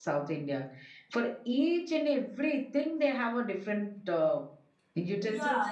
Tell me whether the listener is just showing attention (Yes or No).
No